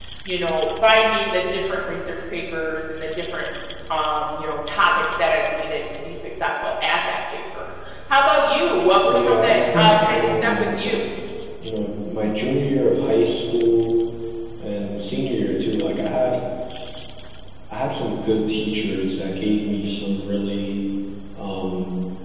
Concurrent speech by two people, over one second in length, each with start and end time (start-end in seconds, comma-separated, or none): 9.1-10.5